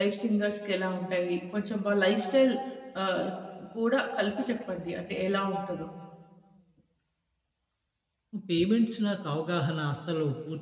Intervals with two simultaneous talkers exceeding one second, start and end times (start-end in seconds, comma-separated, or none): none